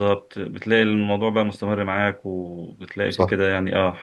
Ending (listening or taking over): listening